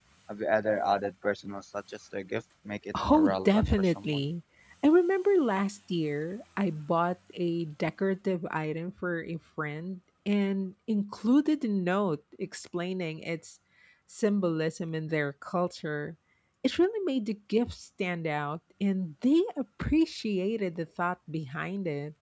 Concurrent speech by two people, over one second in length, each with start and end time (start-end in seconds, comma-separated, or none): 3.0-4.2